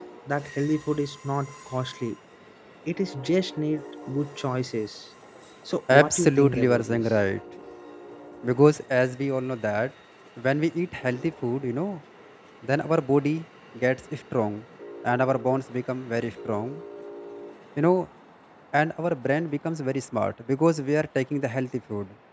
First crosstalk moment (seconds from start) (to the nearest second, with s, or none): 6 s